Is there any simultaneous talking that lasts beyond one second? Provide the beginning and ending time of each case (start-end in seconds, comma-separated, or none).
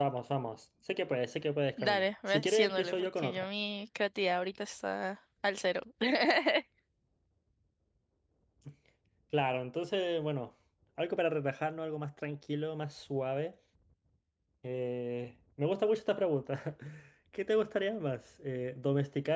1.8-3.5